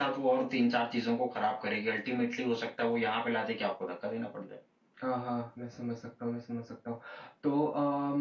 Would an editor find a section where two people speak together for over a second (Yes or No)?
No